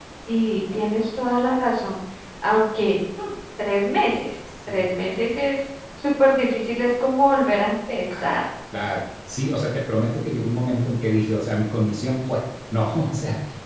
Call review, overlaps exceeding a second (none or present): none